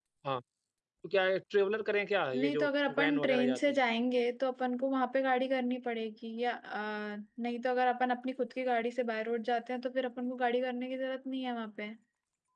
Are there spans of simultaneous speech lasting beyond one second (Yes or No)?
Yes